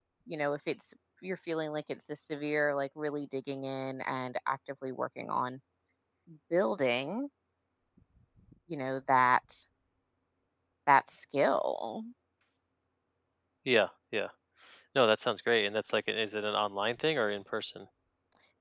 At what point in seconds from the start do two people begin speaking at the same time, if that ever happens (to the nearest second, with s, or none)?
none